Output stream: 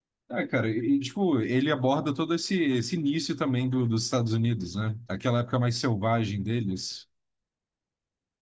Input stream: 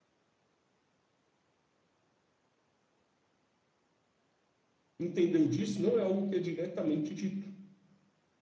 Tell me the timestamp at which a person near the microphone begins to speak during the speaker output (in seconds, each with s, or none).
5.0 s